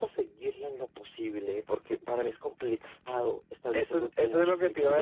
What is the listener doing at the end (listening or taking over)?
taking over